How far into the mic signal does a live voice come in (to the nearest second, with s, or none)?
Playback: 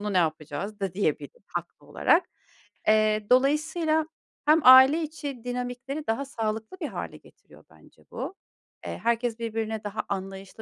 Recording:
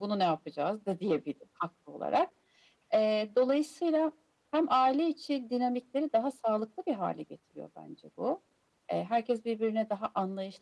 none